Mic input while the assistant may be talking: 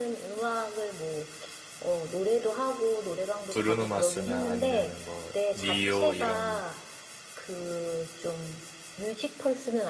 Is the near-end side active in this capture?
Yes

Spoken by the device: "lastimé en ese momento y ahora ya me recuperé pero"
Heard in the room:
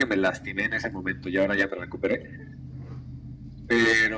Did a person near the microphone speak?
No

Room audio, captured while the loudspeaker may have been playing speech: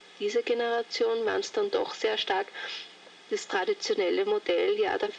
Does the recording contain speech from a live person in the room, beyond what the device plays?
No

